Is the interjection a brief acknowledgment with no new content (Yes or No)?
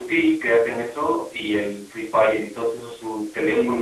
No